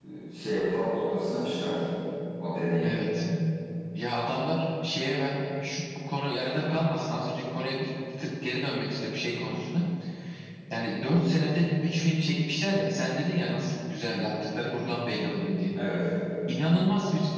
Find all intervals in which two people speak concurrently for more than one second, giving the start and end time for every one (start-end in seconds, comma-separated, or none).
none